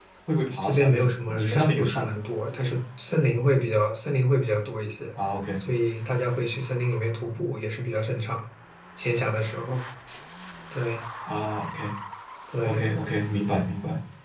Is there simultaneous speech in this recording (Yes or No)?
Yes